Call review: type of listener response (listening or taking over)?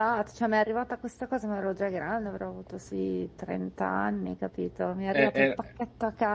listening